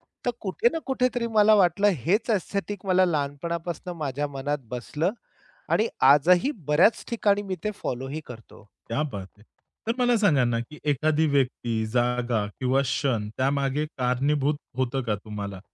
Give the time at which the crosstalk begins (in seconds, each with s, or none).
none